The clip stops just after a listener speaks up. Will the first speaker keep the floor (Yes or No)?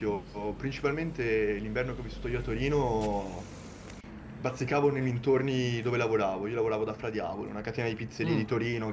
Yes